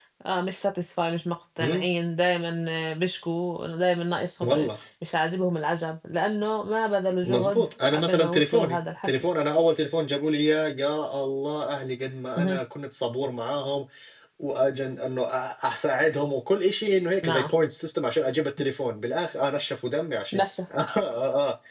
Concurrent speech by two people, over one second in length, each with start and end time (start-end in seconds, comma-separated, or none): 7.2-9.2